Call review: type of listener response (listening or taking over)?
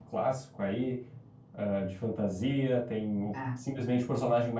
listening